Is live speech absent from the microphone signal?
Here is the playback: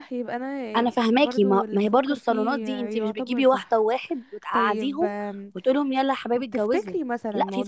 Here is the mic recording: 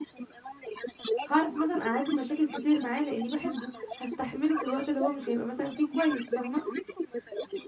No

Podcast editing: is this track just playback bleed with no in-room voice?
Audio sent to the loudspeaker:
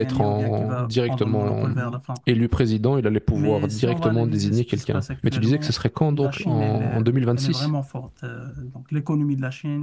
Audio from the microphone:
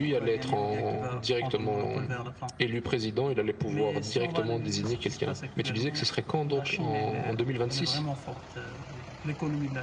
Yes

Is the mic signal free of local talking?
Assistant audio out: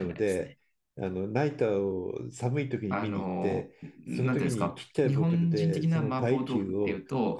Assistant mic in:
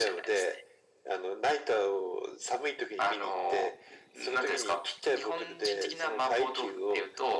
Yes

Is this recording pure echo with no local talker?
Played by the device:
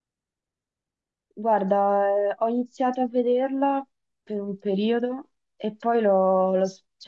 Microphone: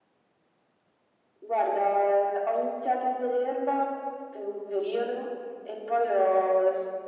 Yes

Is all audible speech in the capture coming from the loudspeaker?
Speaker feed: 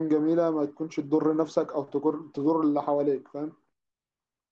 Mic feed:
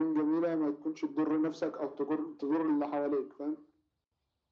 Yes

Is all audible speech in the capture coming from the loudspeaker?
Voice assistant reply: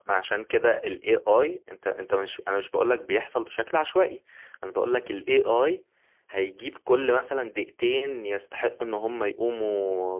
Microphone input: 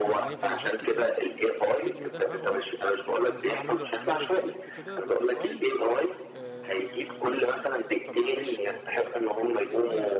No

